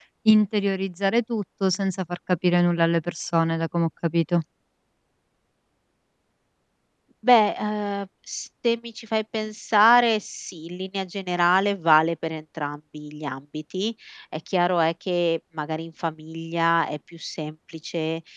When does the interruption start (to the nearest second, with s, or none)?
none